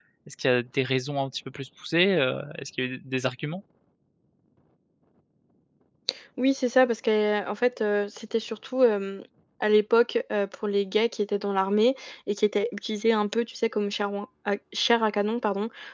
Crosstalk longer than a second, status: none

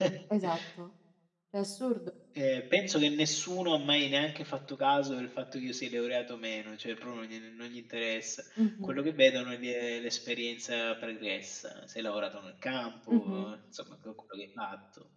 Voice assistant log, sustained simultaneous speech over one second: none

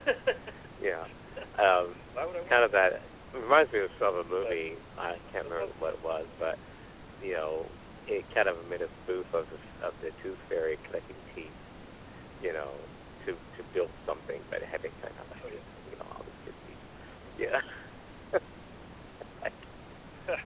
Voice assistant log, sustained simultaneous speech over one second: none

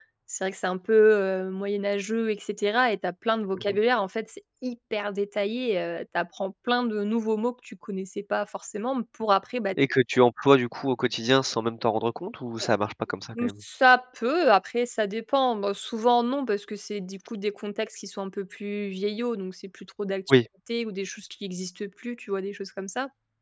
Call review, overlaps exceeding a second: none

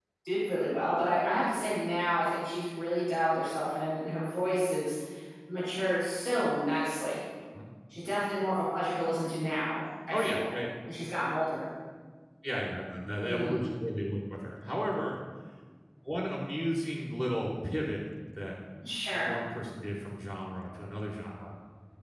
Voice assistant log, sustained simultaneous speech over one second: none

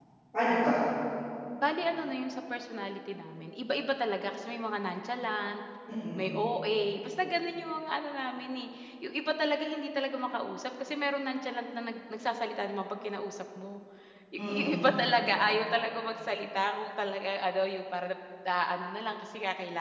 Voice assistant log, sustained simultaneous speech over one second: none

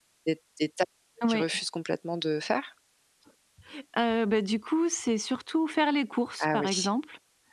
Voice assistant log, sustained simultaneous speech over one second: none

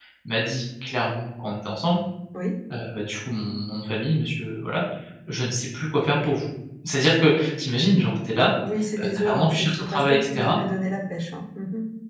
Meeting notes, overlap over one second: present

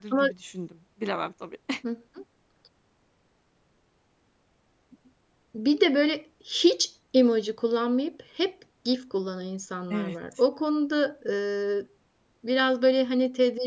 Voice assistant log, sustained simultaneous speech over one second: none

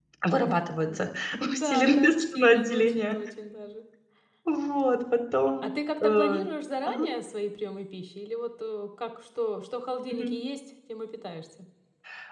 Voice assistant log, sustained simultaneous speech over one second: present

